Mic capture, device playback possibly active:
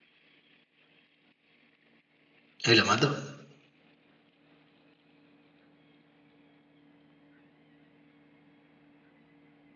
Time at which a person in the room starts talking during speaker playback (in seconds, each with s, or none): 2.7 s